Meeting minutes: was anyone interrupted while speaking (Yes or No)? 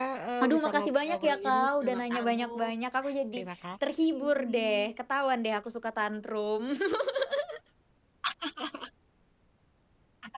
Yes